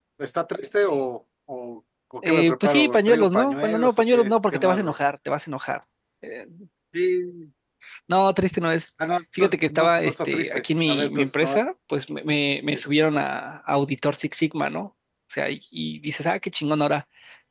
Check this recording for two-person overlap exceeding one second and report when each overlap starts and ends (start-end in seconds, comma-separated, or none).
2.2-5.0, 9.4-11.6